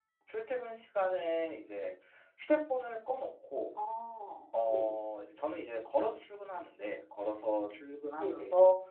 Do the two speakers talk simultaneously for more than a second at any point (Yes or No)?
No